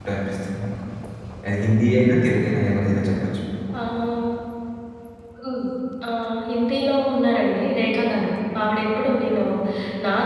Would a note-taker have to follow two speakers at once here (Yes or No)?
No